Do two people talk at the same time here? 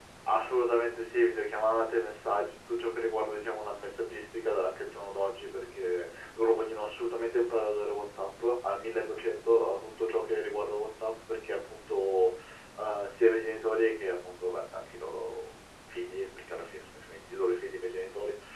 No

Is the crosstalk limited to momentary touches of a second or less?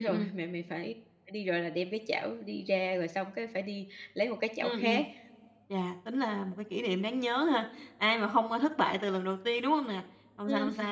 Yes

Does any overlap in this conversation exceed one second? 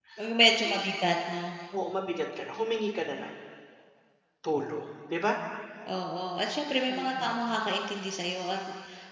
No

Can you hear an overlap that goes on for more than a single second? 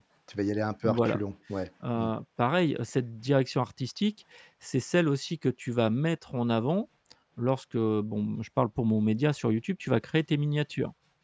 No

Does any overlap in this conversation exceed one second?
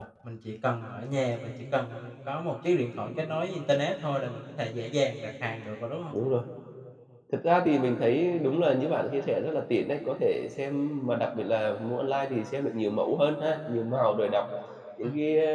No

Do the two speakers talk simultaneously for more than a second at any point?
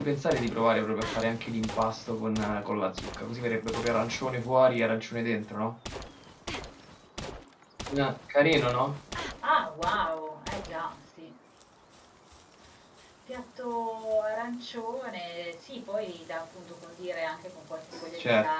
No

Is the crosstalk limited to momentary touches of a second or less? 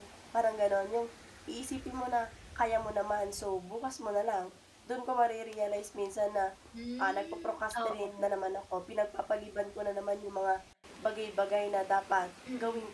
No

